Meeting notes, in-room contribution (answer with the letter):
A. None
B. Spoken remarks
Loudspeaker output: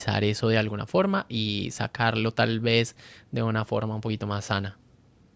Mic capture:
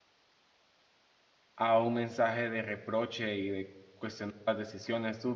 B